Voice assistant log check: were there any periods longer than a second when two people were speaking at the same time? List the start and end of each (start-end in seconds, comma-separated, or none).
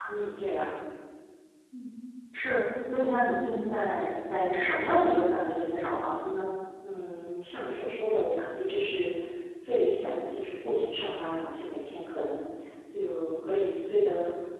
none